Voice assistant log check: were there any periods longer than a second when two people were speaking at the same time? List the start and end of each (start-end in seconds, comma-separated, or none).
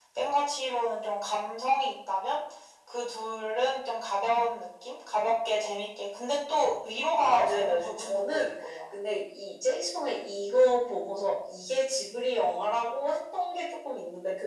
7.3-8.5